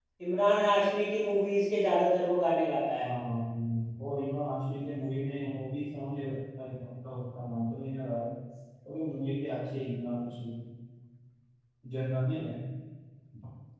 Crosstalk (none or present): none